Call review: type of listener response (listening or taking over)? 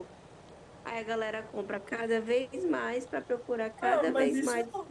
taking over